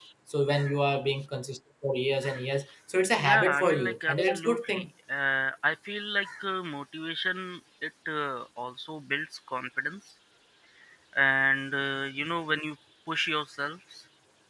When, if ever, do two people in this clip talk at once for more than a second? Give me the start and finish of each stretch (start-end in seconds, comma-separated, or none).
3.2-4.8